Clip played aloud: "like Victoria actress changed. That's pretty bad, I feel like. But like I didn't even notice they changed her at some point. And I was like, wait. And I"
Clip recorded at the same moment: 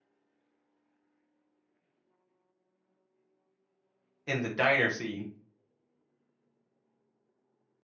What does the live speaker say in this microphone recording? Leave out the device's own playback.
in the diner scene.

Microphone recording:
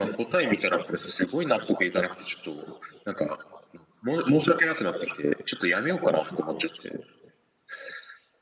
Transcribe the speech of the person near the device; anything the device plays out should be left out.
none

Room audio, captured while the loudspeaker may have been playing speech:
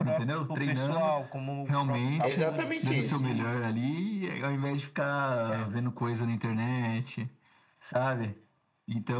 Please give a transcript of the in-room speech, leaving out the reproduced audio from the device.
é exatamente isso,

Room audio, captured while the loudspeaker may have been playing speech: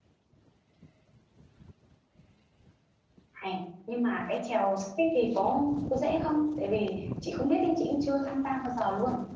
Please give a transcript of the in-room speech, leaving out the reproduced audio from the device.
Hay. Nhưng mà cái chèo sắp thì có có dễ không? Tại vì chị không biết đi, chị cũng chưa tham gia bao giờ luôn.

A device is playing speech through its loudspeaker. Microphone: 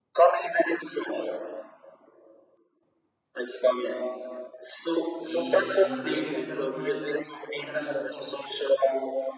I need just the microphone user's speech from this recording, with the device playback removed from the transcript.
e antigamente era uma, uma garagem de Porsche.

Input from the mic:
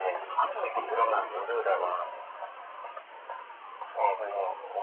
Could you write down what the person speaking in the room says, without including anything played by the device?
none

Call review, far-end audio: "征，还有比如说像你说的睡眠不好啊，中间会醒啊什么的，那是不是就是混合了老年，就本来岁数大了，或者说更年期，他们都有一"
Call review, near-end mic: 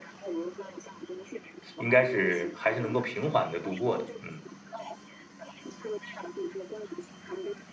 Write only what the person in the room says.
应该是还是能够平缓的度过的，嗯。

